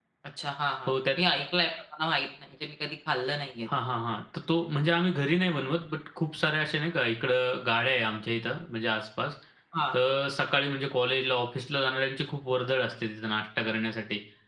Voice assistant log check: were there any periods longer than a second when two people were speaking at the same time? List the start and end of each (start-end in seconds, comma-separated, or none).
none